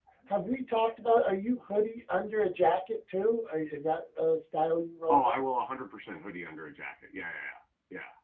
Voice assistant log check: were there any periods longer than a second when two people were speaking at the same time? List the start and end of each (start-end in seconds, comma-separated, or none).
none